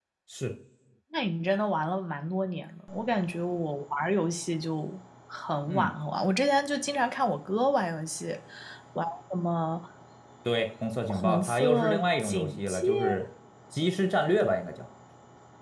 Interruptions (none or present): present